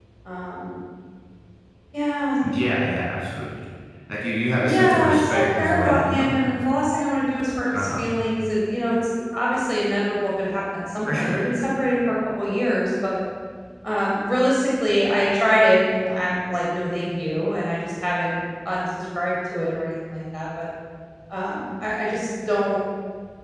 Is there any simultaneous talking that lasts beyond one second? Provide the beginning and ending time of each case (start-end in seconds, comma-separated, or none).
4.6-6.3